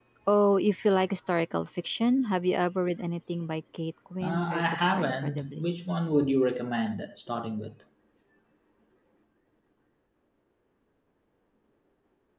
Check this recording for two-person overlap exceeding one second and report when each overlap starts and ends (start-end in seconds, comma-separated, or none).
4.2-5.6